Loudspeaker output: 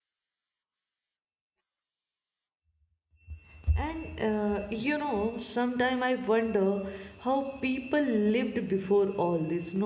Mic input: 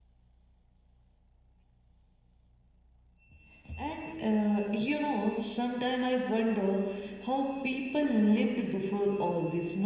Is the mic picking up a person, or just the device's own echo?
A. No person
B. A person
A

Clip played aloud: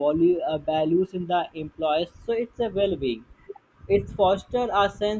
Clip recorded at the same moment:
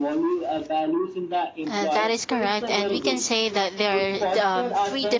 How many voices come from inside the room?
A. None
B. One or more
B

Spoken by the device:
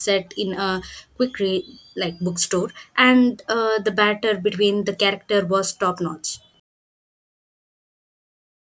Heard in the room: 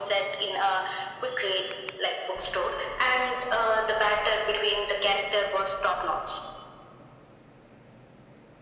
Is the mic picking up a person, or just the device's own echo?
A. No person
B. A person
A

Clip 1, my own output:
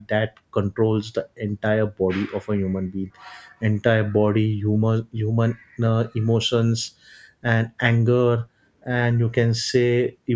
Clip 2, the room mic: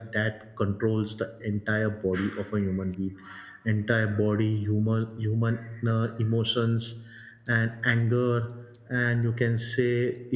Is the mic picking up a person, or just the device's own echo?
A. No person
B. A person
A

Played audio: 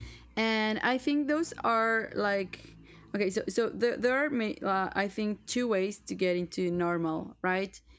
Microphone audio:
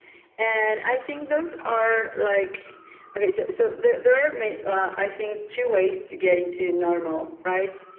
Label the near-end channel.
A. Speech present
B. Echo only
B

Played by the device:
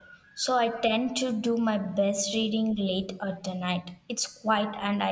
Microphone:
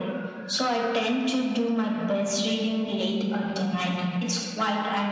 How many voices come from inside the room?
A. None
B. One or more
A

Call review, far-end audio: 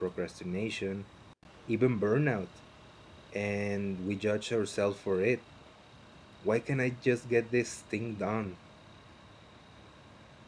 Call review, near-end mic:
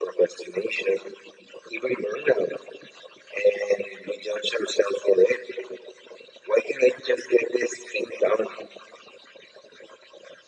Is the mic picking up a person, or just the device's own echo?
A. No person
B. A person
A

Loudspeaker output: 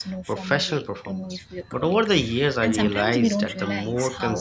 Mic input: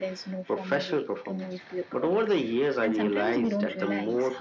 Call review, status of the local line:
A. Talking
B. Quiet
B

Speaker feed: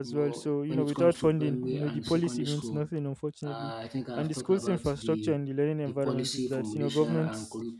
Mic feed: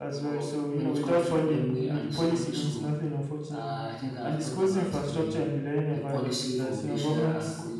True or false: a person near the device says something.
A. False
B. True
A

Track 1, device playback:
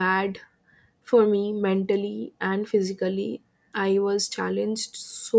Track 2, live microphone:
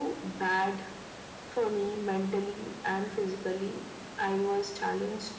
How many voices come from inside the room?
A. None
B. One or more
A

